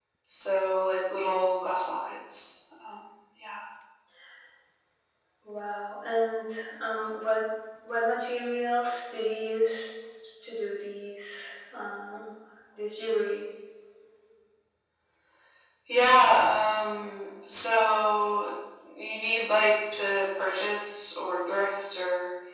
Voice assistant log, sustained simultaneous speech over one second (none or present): none